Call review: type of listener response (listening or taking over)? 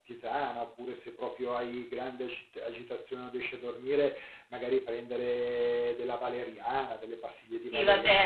taking over